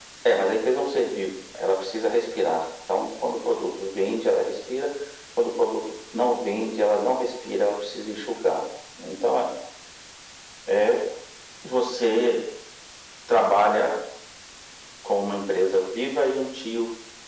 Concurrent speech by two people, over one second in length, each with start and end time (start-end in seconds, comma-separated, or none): none